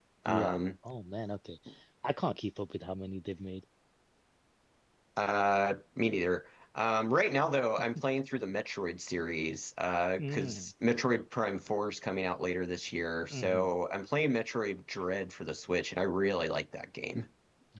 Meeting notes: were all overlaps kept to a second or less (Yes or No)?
Yes